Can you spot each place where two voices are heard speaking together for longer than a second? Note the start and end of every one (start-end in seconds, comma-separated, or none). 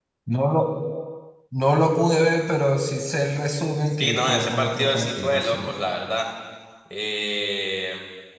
4.0-5.8